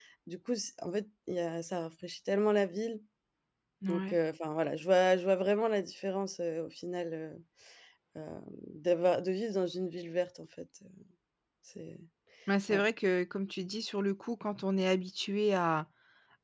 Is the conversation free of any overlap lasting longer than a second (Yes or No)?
Yes